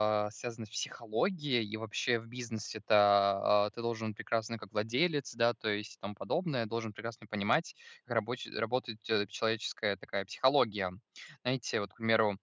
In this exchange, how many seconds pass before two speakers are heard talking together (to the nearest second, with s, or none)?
none